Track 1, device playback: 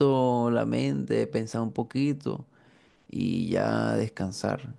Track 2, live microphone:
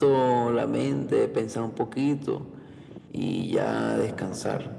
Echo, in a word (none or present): present